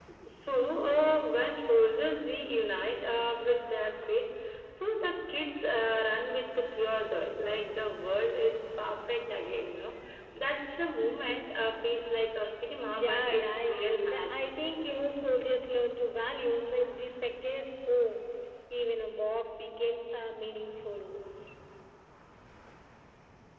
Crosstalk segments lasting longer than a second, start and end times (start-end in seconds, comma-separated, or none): 13.0-14.4